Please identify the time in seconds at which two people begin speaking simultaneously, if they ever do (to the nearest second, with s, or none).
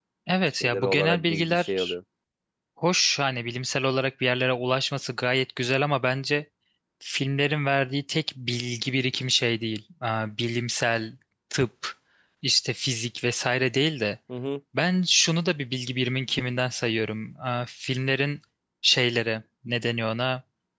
1 s